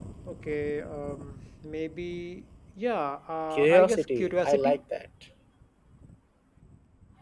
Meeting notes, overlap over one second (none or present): present